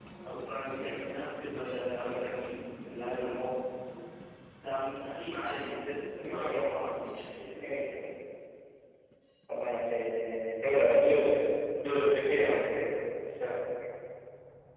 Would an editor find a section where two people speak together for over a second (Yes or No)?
No